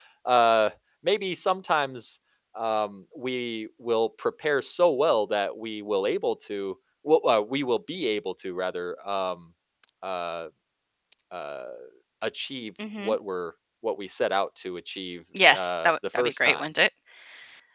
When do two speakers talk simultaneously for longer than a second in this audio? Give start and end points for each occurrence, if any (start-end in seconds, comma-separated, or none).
15.4-16.6